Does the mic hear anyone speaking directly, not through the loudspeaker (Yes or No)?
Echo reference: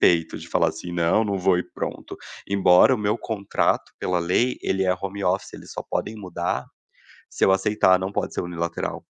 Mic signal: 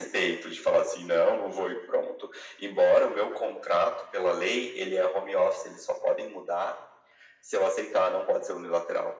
No